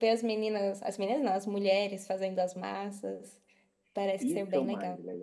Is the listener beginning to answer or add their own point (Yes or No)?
Yes